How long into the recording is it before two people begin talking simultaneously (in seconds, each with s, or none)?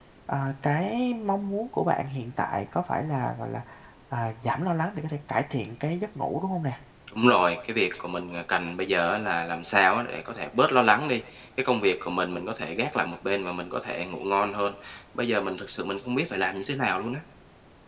none